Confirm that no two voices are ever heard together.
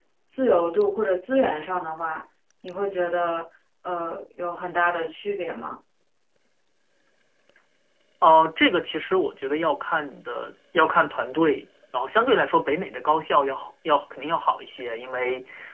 Yes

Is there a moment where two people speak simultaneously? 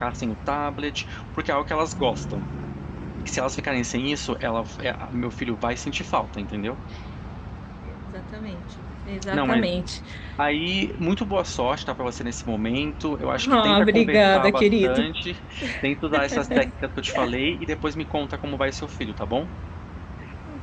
Yes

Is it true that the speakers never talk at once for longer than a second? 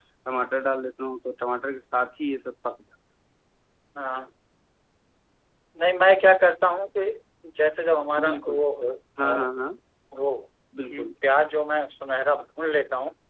Yes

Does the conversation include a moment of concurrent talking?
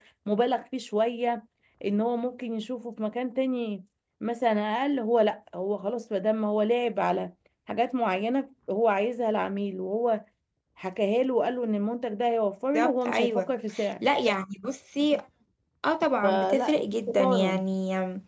Yes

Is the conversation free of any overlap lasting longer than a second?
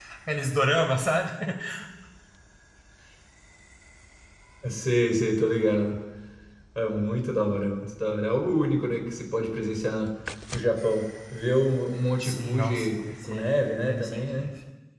No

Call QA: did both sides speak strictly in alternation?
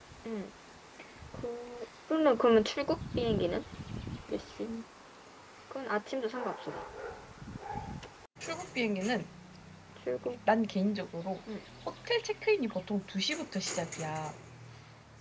Yes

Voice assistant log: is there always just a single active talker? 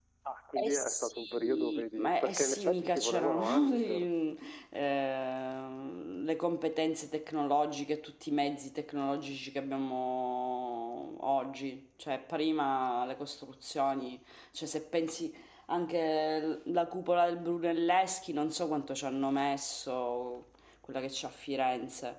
No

